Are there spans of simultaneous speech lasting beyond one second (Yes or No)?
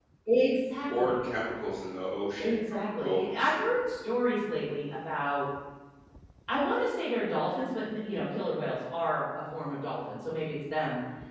Yes